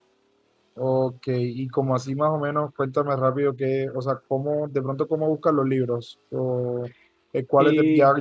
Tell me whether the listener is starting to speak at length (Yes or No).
No